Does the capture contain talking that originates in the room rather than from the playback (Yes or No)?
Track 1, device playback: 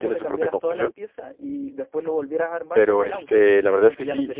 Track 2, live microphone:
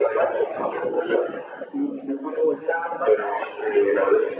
No